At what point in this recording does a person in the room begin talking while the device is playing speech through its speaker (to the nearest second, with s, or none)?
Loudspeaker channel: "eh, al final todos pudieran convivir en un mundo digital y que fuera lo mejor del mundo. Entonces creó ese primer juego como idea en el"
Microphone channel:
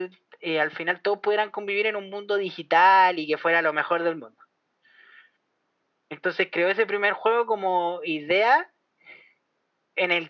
none